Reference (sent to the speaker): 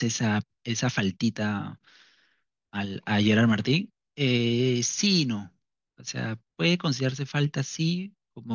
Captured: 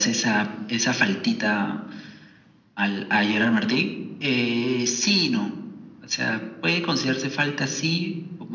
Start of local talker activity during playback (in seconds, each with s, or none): none